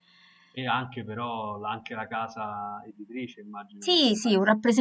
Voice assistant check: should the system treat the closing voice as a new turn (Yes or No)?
Yes